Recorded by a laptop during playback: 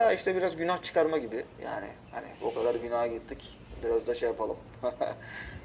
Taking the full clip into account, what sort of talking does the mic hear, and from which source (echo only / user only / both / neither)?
echo only